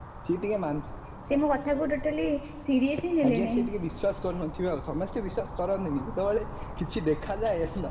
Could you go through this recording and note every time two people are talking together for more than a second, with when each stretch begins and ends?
none

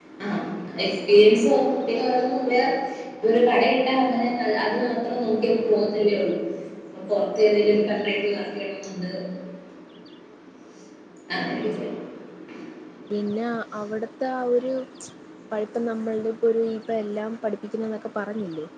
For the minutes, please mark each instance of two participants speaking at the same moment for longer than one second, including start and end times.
none

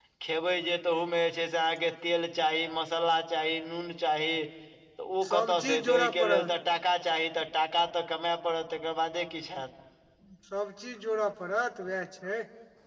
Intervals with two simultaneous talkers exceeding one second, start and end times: 5.3-6.5

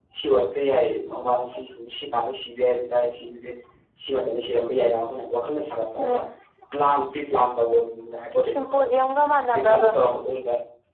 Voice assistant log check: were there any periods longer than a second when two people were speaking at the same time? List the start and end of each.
none

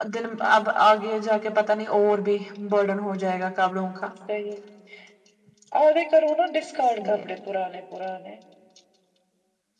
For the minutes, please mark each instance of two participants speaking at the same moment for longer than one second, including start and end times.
none

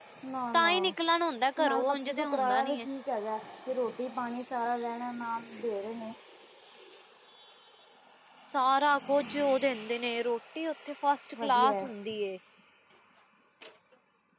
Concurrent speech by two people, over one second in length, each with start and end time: 1.6-2.9

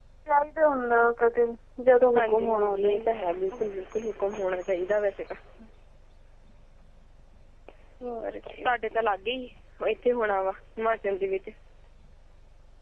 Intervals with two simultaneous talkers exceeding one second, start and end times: 2.1-3.6

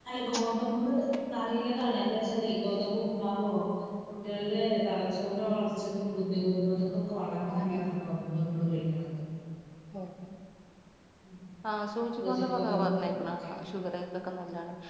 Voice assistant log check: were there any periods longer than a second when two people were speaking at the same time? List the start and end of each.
12.2-13.5

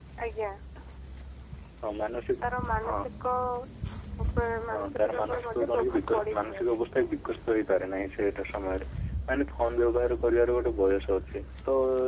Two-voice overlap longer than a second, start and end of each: 4.7-6.7

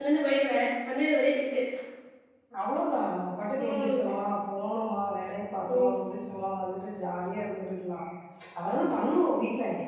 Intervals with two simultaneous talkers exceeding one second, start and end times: none

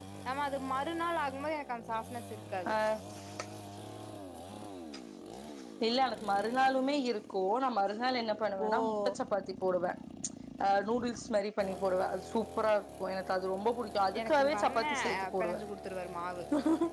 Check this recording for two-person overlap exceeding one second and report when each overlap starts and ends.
14.2-15.6

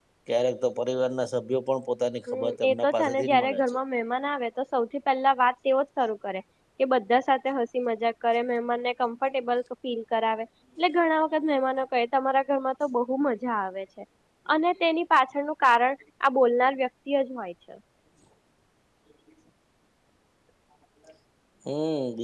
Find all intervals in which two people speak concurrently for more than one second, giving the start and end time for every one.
2.3-3.8

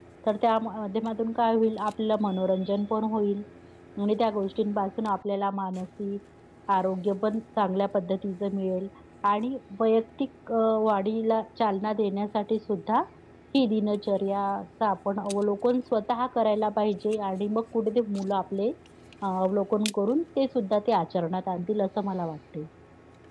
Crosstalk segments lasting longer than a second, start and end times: none

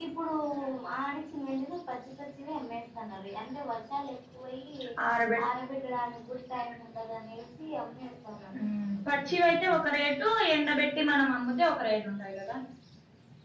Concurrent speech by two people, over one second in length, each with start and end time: none

